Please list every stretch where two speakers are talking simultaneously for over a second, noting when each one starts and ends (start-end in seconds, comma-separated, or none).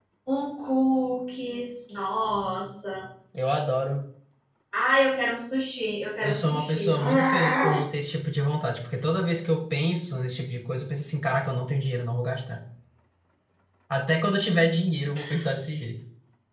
6.2-7.8